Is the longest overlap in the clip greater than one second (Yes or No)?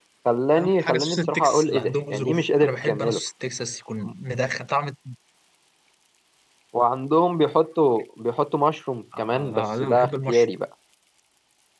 Yes